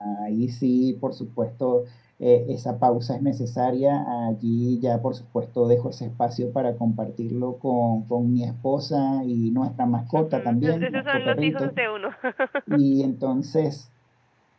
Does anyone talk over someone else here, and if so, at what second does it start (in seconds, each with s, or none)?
10.1 s